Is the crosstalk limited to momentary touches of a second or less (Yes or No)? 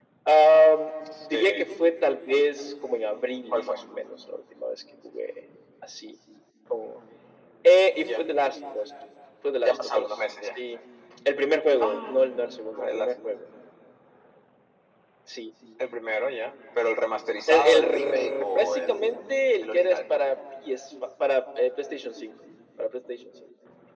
No